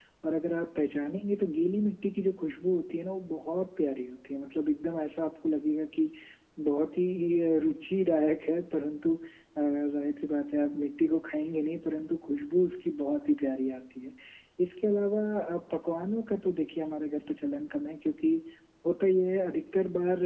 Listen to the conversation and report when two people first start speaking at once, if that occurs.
none

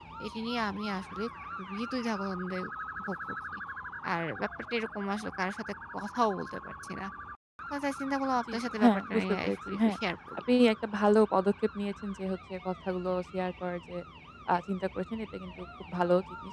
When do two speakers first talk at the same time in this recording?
9 s

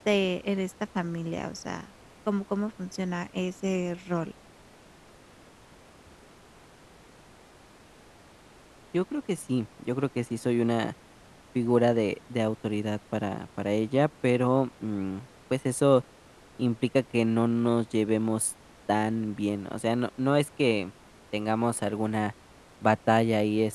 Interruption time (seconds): none

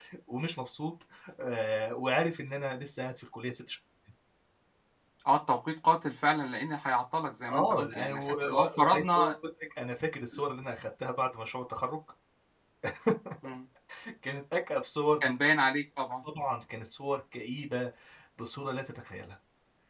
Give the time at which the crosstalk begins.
7 s

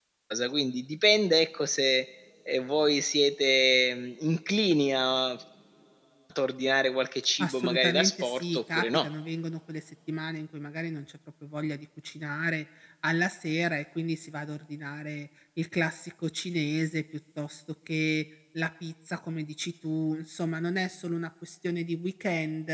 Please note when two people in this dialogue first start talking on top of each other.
7 s

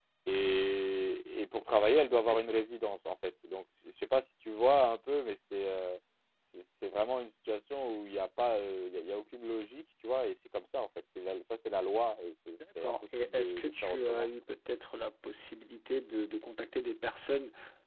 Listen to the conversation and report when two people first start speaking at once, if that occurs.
13 s

